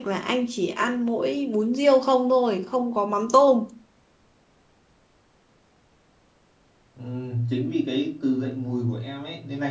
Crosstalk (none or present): none